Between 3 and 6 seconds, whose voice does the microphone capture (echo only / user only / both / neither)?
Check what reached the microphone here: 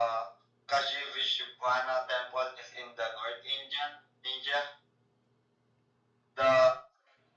echo only